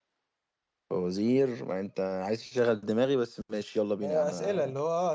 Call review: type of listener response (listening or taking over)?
taking over